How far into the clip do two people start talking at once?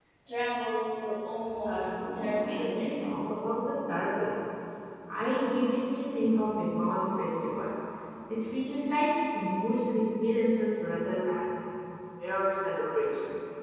1.6 s

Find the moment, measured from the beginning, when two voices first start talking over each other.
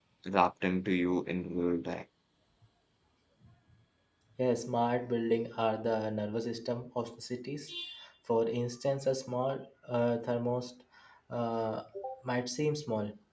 none

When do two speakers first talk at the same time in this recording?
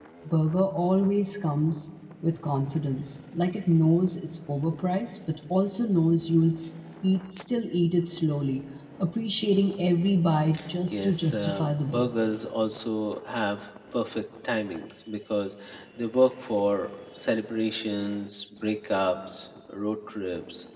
10.9 s

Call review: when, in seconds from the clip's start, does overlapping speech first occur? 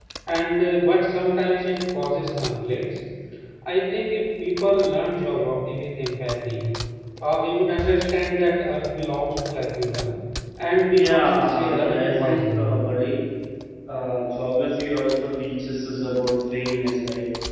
10.9 s

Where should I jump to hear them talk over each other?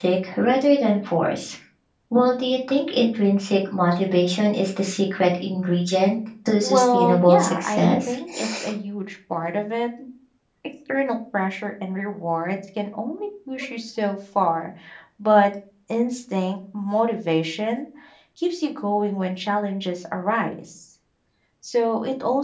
6.6 s

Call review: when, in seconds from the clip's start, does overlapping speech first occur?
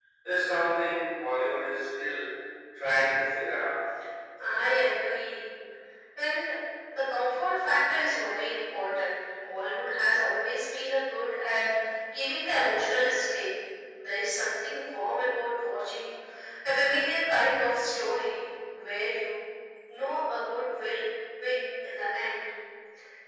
none

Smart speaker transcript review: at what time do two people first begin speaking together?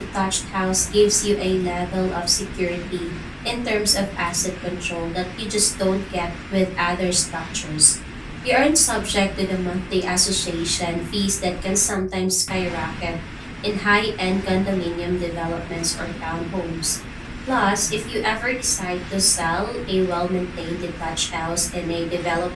none

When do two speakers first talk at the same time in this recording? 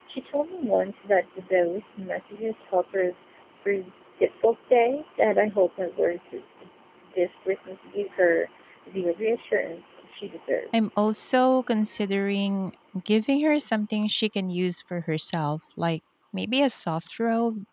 none

